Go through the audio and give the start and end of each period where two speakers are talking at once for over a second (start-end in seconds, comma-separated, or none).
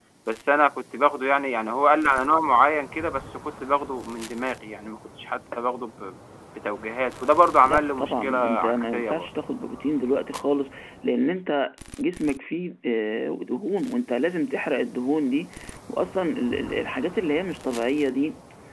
7.7-9.3